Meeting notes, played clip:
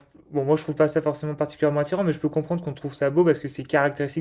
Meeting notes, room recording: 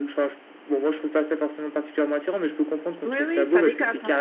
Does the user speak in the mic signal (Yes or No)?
Yes